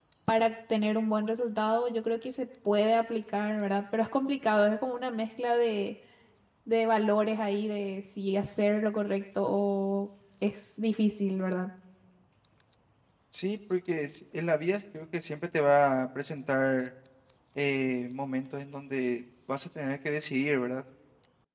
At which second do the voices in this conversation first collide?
none

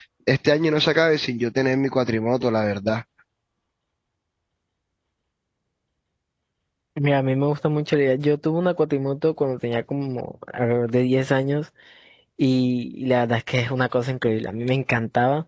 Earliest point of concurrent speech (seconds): none

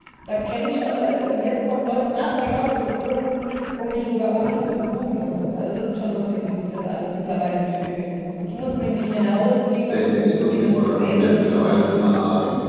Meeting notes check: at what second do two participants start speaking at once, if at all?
9.9 s

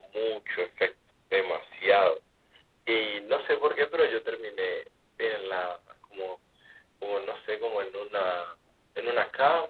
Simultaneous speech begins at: none

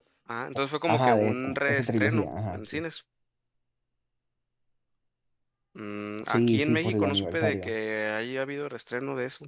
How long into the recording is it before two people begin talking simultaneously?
0.9 s

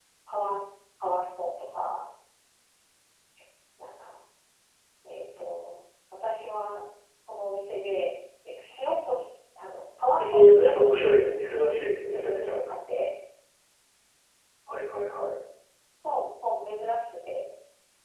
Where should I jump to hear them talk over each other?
10.2 s

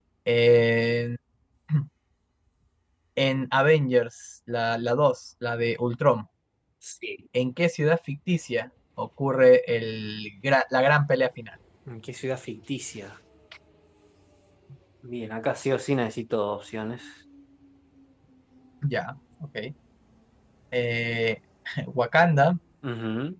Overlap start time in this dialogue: none

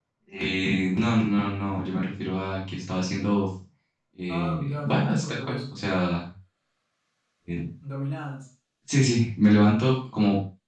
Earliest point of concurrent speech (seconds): 4.3 s

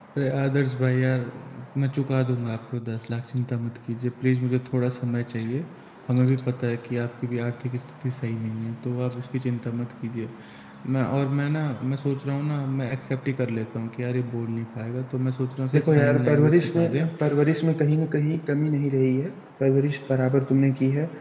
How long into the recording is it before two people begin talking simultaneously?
15.7 s

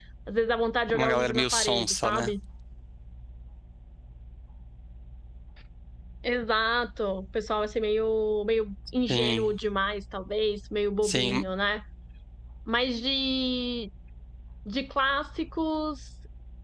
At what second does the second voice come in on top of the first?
0.9 s

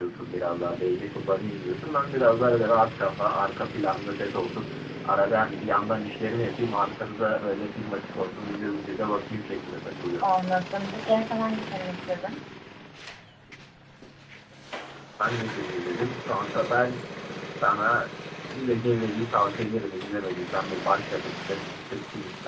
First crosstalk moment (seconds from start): none

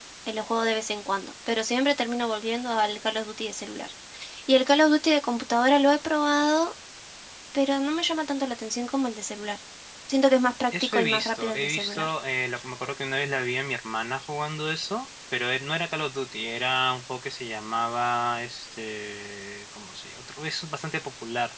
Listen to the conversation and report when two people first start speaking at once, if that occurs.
10.8 s

